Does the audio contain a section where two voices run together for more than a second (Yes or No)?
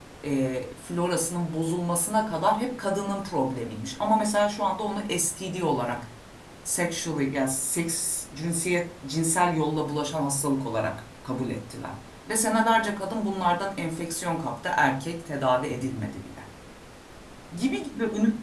No